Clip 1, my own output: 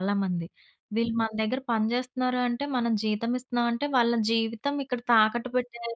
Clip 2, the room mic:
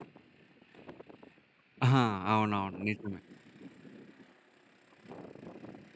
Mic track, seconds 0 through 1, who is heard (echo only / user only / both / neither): neither